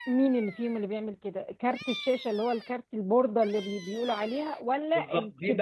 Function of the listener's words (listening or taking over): taking over